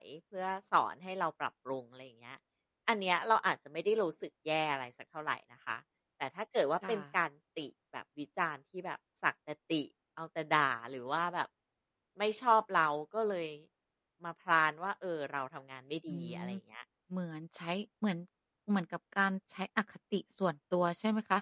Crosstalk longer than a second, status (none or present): none